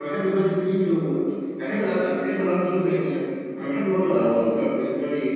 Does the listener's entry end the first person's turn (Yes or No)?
No